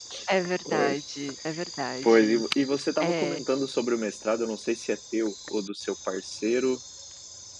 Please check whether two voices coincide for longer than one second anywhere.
No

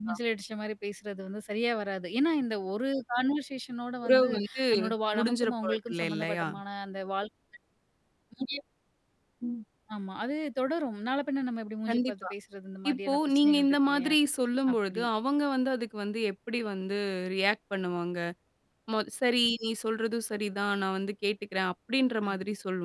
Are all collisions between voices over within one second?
No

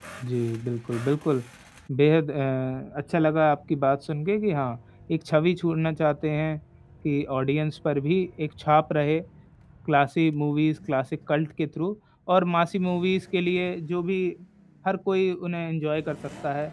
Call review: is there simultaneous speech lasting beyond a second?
No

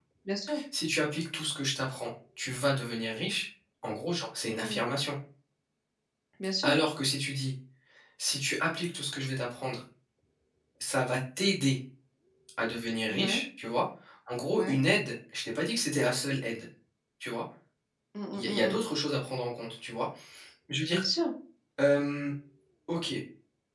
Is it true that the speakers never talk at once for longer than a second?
Yes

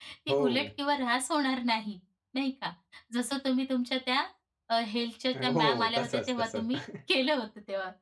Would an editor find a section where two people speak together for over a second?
Yes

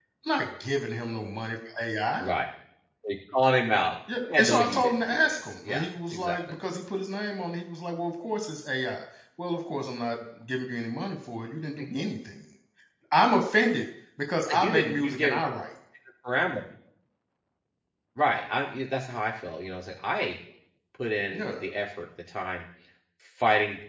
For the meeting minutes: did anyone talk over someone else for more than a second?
Yes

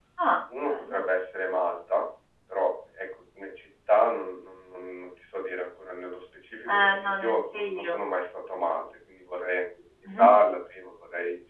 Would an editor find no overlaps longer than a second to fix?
No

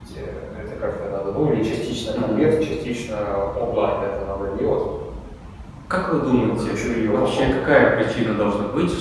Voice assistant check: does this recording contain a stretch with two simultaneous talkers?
Yes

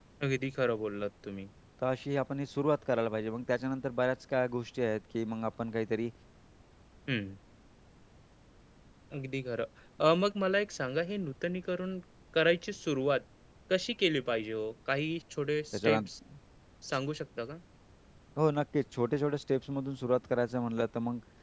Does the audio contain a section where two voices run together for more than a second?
No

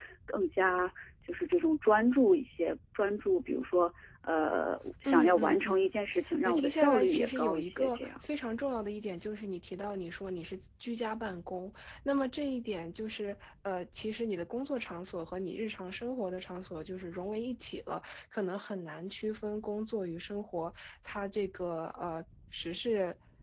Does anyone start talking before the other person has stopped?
Yes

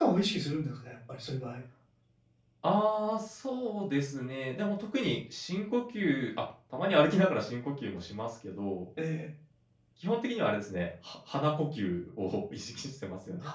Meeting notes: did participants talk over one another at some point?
No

